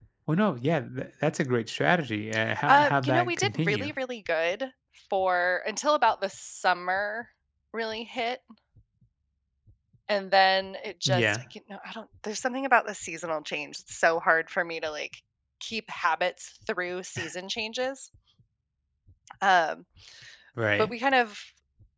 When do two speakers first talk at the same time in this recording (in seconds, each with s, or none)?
2.7 s